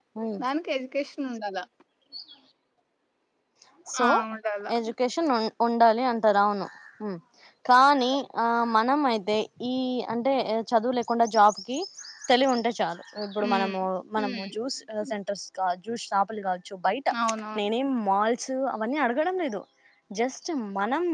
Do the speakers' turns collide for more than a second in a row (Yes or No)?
No